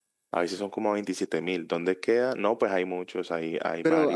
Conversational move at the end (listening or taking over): taking over